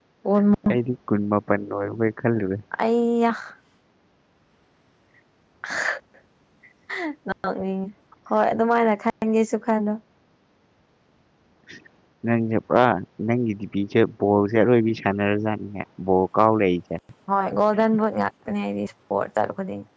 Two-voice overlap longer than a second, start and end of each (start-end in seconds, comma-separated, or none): none